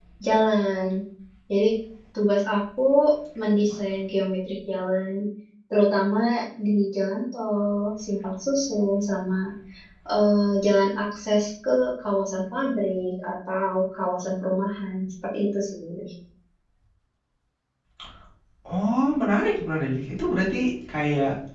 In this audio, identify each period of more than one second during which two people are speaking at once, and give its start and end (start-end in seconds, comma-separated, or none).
none